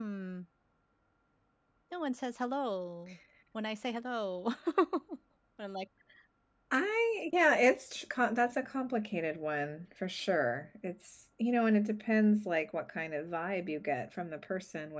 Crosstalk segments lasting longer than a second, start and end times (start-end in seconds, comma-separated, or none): none